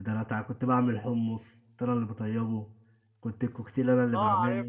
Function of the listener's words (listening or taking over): taking over